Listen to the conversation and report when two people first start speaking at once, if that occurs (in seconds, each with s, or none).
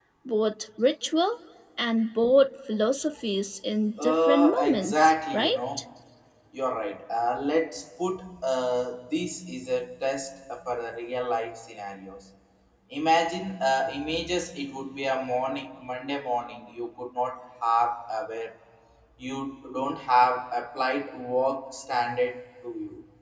4.0 s